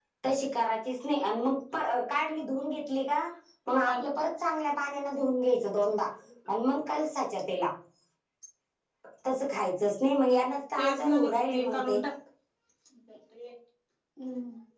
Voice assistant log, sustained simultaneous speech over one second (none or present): present